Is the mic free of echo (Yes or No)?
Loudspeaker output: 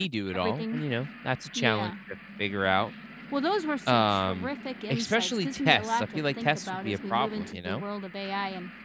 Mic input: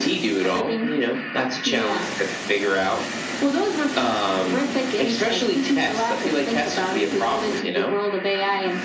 No